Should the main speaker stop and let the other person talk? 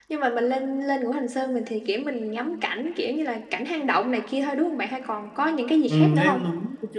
Yes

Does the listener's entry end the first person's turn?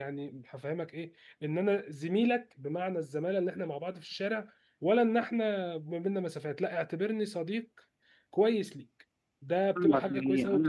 Yes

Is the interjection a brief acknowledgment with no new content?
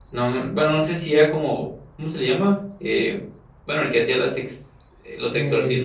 No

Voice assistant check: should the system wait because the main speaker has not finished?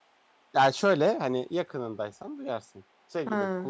Yes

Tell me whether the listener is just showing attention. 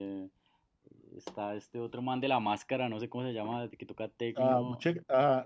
No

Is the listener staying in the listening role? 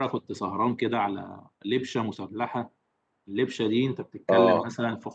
Yes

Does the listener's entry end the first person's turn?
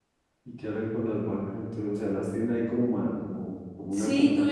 Yes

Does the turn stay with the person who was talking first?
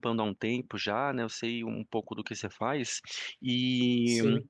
Yes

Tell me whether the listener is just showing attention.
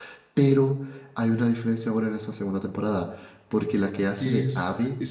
No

